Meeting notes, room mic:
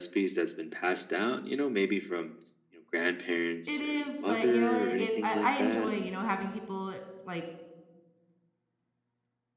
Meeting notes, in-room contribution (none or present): present